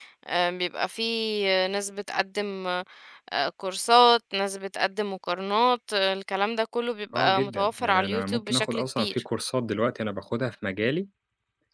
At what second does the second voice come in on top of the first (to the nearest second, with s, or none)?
7 s